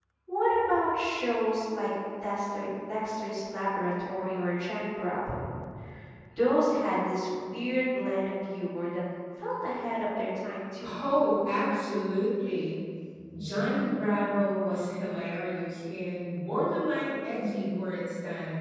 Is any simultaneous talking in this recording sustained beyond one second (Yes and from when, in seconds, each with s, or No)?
No